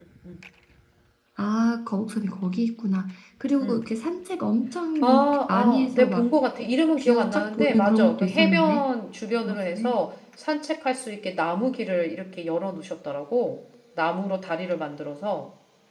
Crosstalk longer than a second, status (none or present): present